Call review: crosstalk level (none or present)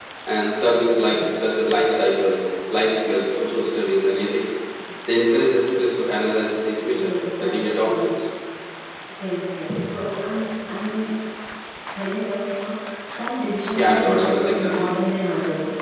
present